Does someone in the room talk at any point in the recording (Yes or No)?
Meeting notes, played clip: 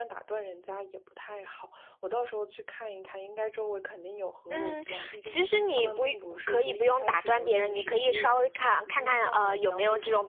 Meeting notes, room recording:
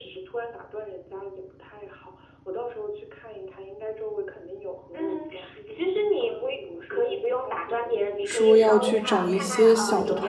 Yes